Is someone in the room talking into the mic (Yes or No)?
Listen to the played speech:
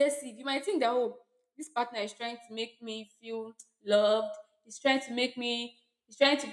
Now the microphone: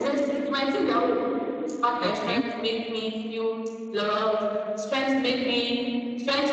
Yes